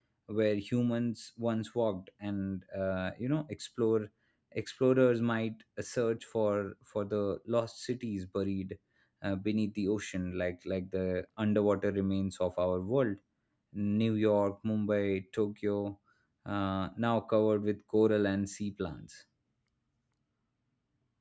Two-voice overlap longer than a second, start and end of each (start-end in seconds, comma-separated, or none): none